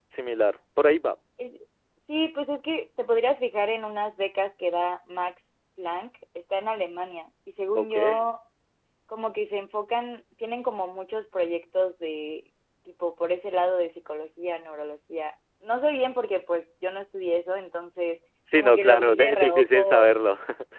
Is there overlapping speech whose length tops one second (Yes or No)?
Yes